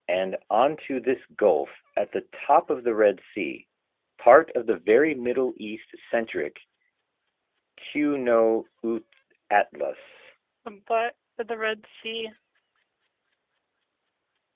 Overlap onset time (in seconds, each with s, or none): none